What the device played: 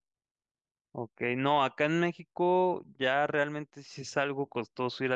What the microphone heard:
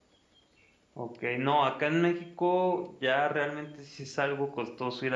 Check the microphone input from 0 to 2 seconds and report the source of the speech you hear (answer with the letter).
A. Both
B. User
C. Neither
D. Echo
D